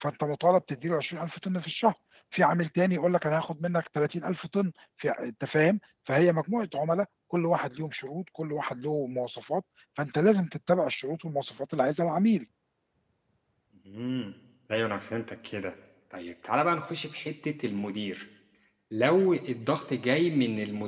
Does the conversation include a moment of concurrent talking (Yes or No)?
No